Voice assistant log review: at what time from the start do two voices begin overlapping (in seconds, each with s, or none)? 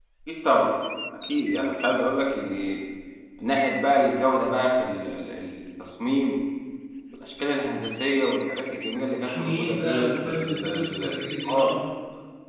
9.2 s